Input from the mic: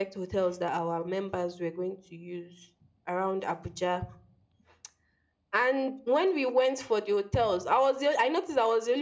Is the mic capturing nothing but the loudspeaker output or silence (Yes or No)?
Yes